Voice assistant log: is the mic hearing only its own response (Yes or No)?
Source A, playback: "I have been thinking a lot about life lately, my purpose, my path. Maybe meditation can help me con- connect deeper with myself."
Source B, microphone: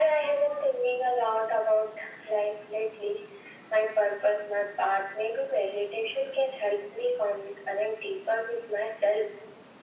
Yes